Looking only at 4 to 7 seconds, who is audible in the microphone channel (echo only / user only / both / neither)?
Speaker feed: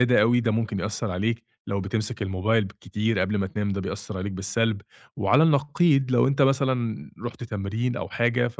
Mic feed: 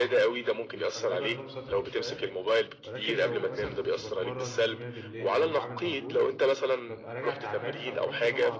both